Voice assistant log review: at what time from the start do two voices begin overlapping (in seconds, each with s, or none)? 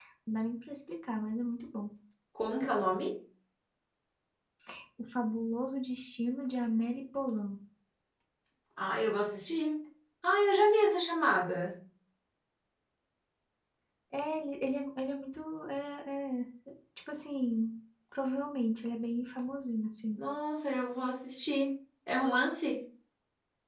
none